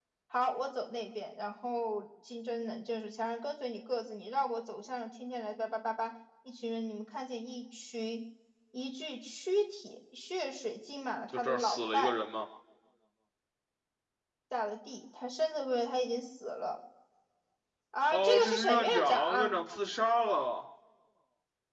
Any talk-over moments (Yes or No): Yes